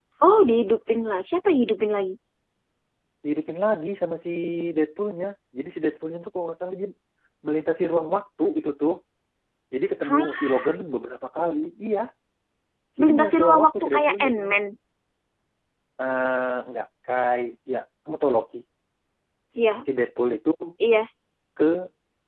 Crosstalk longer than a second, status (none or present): present